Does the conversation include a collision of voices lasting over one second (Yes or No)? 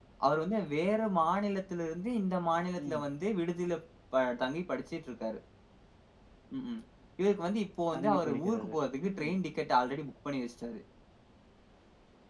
Yes